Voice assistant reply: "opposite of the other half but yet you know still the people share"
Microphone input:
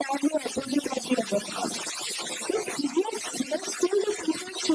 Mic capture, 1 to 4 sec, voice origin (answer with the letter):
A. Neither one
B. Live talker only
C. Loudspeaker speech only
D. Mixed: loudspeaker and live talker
C